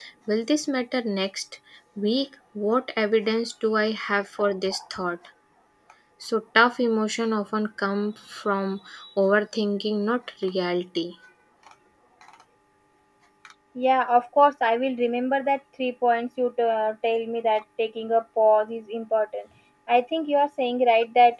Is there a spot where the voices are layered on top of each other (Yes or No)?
No